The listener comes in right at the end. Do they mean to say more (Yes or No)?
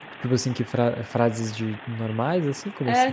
Yes